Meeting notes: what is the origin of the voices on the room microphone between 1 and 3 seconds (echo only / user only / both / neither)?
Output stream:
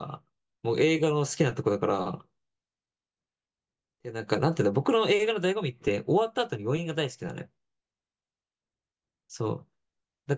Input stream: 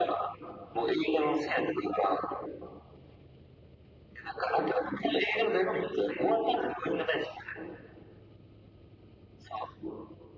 echo only